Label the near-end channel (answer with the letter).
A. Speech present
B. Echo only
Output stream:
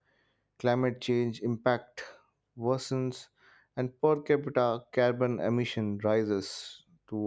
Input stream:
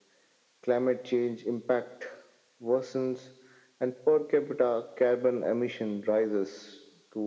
B